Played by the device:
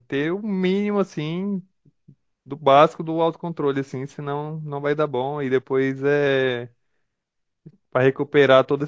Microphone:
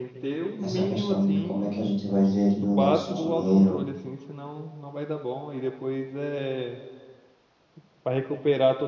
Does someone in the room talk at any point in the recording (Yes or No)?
Yes